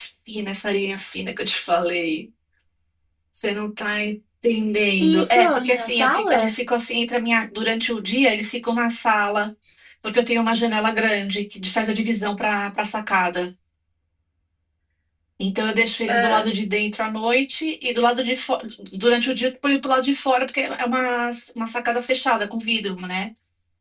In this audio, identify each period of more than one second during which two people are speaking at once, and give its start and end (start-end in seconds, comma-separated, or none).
5.0-6.5